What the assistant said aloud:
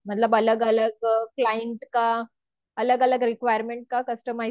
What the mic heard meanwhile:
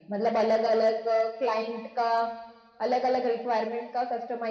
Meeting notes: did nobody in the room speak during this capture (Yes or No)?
Yes